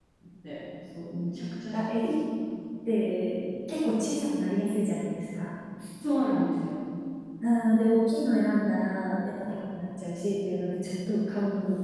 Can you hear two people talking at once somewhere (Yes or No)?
No